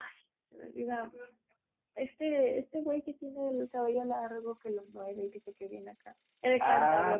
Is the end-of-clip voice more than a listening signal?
Yes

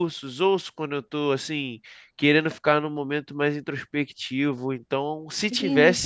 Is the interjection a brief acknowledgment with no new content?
No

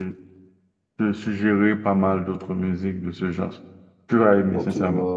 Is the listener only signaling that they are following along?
No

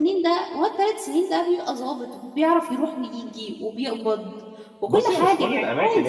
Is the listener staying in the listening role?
No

